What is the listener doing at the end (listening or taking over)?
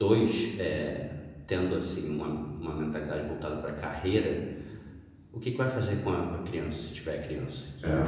listening